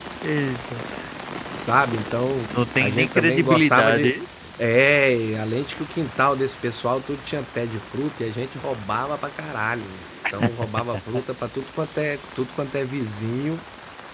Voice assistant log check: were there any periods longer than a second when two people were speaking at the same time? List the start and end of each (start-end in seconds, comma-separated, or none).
2.8-4.1